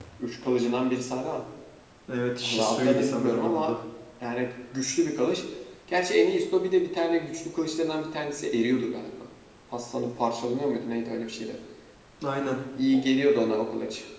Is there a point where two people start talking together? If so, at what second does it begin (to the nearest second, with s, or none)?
2 s